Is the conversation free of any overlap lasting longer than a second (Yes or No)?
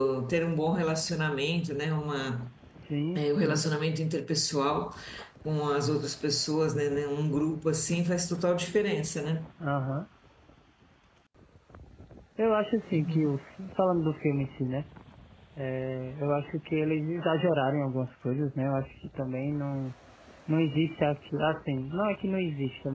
Yes